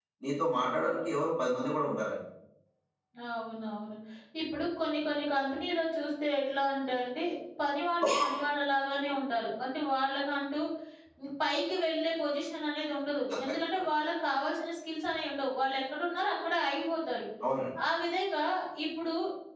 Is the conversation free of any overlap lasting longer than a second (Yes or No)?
Yes